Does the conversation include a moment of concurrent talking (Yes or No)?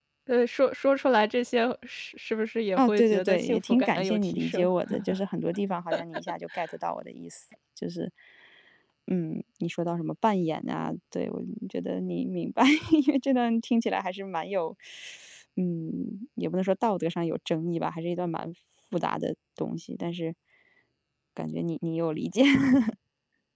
Yes